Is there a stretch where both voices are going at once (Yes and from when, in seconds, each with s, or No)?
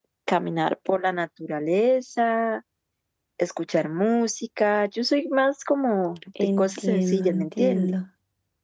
Yes, from 6.3 s